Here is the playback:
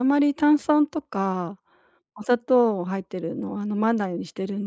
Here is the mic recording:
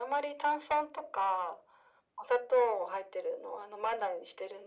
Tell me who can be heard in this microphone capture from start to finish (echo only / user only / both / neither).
echo only